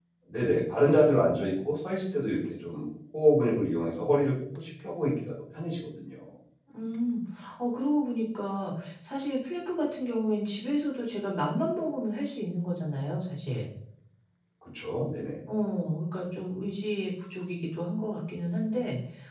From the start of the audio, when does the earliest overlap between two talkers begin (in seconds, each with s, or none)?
none